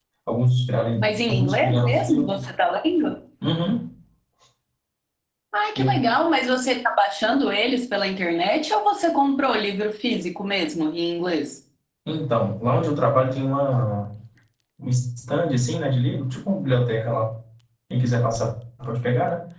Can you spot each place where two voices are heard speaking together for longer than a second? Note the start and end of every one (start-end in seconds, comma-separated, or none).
1.0-2.3